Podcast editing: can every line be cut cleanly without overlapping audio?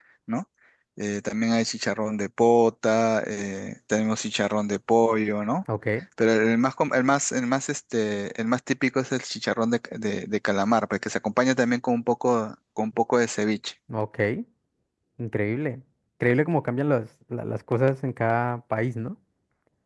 Yes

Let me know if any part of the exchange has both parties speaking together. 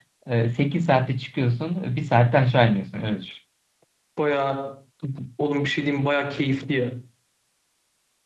No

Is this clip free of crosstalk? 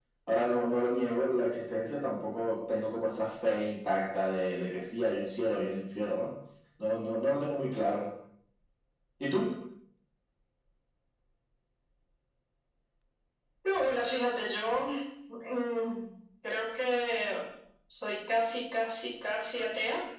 Yes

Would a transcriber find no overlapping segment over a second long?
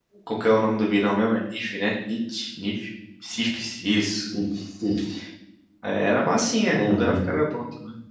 Yes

